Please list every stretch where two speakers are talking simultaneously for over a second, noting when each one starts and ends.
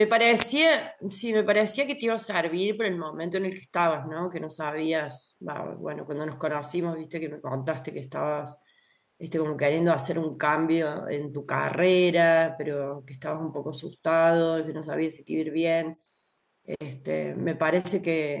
none

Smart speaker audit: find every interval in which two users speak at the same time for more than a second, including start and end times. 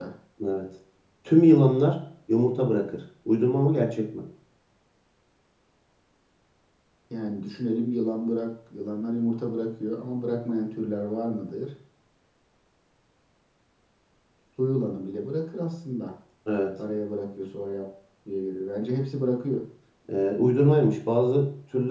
none

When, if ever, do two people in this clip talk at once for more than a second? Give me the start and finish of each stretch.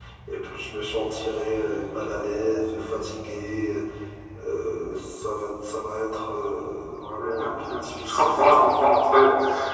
7.2-8.6

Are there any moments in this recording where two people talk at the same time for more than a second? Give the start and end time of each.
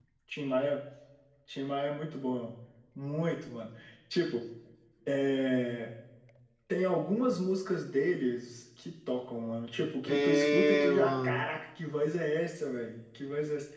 10.0-11.5

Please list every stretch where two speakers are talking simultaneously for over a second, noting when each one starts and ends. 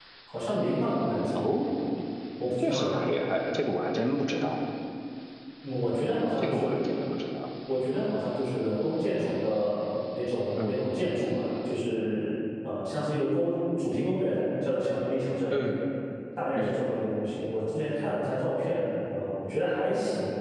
none

